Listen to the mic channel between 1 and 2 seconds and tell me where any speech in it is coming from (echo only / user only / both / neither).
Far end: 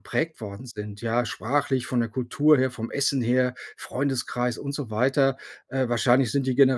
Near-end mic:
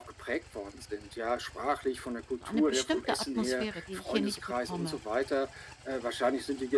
echo only